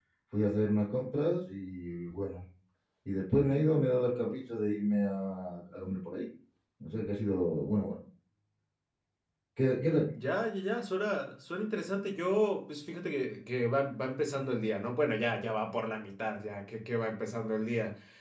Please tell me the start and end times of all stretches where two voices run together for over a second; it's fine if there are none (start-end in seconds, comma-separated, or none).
none